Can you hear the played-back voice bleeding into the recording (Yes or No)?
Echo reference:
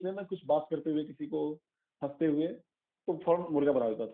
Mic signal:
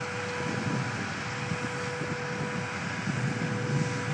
No